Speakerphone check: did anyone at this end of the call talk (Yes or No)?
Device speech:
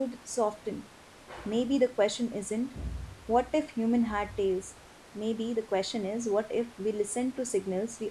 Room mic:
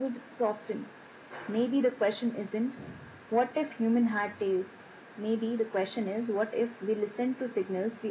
No